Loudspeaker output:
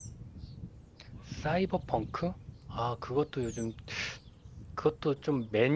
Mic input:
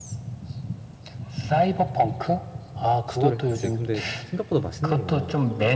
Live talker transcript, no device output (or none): 시도를 했지. 근데 생각보다 맛있는 거야.